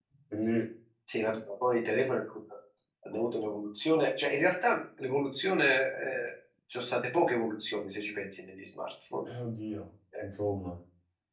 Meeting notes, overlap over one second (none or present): none